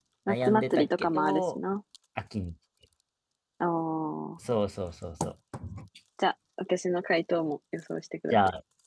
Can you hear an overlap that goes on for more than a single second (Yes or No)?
Yes